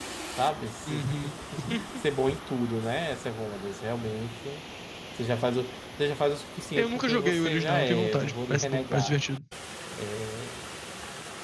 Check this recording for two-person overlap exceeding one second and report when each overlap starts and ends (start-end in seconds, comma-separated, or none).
6.8-9.2